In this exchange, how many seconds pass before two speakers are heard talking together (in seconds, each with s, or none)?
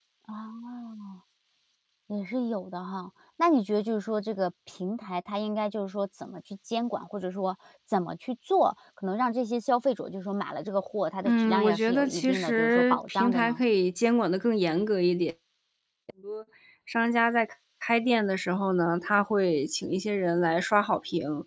11.2 s